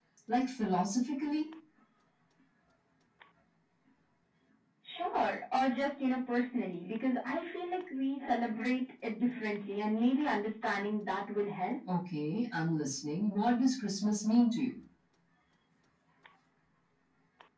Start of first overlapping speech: none

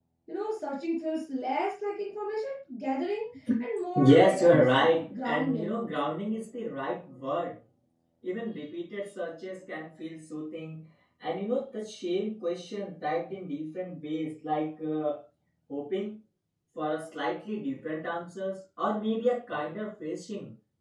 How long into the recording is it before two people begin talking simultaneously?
4 s

